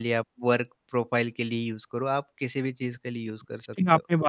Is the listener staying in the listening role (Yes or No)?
No